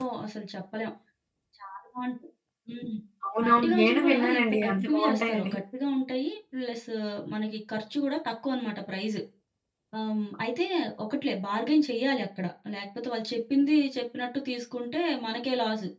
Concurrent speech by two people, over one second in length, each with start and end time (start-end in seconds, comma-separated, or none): 3.4-5.5